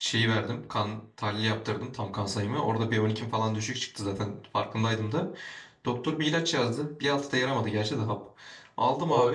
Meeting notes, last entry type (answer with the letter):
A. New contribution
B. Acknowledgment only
A